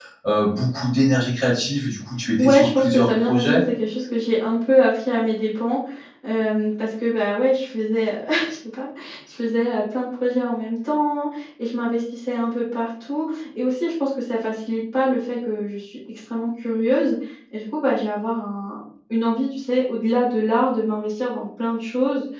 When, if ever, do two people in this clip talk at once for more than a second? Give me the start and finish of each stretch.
2.4-3.6

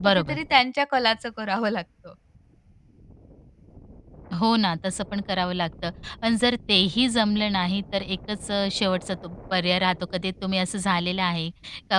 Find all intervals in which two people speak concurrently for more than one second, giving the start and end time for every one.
none

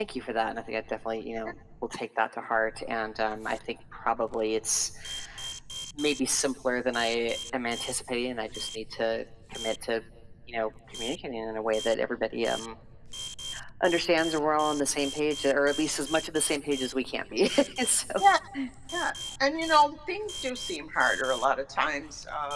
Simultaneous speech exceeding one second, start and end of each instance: none

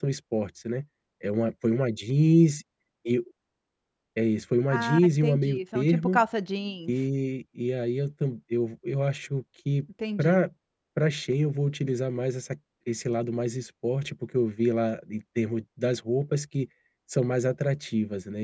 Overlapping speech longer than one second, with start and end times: 4.7-6.2

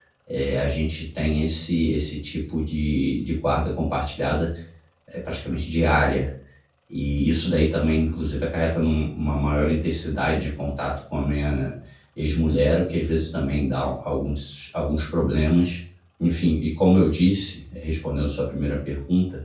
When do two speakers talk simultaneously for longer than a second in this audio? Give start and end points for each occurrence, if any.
none

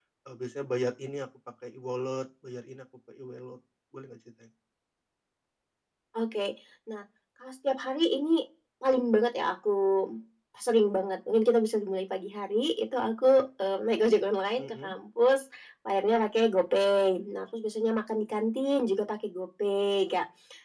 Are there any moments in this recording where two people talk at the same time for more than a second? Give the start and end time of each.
none

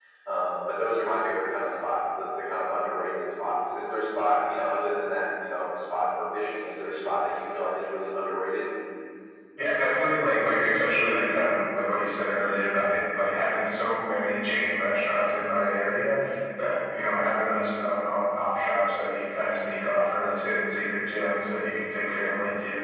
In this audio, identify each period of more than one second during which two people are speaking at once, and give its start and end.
none

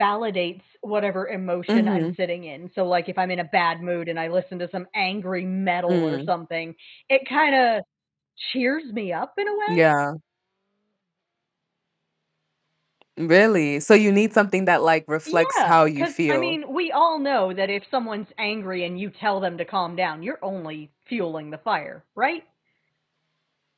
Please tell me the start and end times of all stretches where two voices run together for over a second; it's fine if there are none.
15.3-16.6

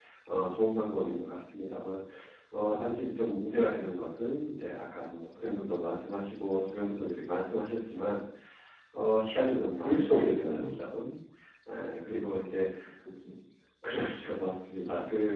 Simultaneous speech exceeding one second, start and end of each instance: 9.5-10.8

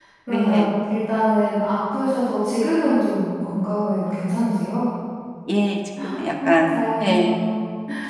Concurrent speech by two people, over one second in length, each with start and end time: none

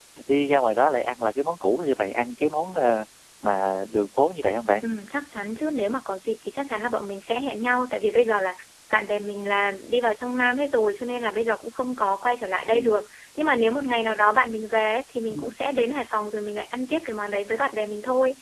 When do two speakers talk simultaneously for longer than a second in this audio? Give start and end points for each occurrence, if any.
none

